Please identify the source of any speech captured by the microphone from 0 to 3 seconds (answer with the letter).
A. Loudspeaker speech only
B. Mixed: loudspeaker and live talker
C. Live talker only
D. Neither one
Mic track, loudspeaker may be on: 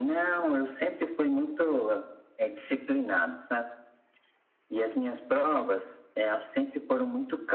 A